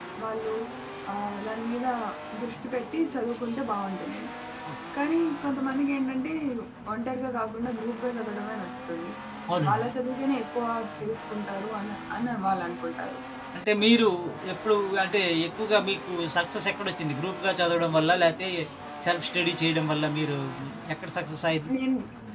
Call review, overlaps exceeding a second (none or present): none